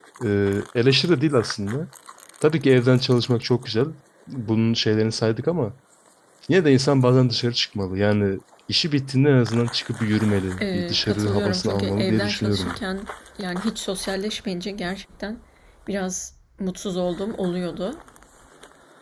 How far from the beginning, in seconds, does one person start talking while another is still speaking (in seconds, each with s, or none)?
10.6 s